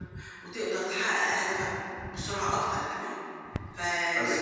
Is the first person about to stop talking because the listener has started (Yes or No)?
No